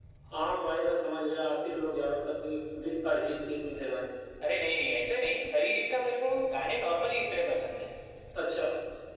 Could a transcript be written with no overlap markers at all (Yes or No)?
Yes